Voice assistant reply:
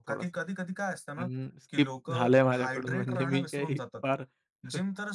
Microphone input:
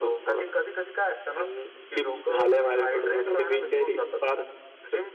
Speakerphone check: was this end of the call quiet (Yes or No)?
Yes